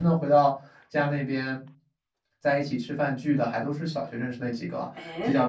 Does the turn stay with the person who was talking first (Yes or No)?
Yes